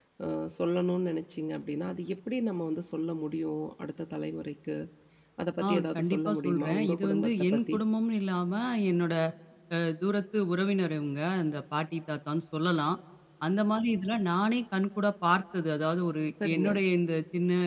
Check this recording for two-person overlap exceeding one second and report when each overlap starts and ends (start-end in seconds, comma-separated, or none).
5.6-7.8